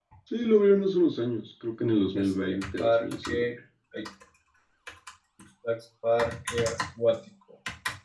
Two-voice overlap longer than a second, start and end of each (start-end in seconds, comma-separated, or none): 2.2-3.5